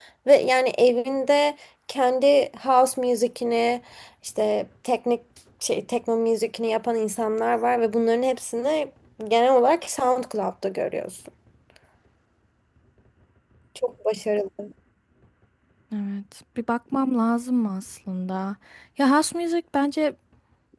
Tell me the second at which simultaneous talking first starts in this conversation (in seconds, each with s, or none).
none